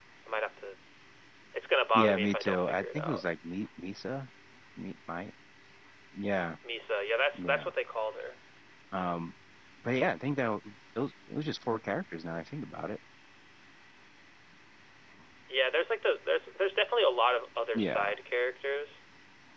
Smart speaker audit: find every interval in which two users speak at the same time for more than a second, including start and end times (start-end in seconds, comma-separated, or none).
1.9-3.2